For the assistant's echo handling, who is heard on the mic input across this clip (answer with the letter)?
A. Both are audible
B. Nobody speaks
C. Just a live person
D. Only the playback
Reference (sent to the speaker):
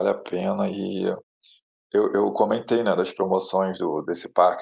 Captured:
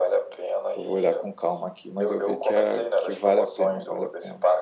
A